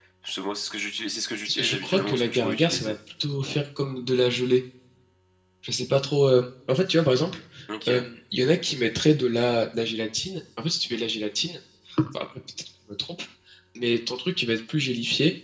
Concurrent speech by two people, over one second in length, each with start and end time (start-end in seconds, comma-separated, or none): 1.6-3.0